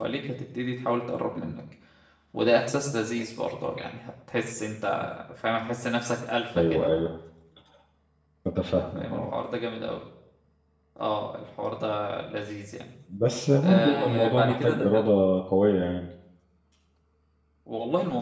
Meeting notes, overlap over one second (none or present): present